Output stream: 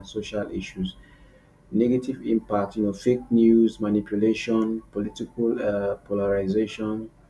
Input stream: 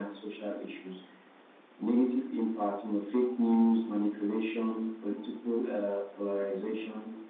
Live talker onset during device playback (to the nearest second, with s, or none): none